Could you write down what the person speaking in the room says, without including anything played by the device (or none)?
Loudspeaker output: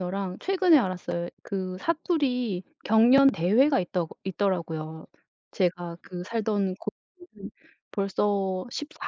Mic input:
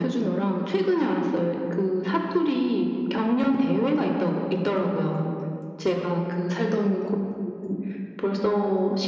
none